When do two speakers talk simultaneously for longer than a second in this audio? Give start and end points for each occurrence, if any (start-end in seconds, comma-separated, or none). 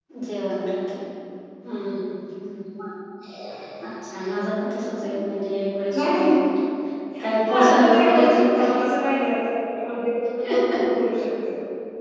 7.5-8.7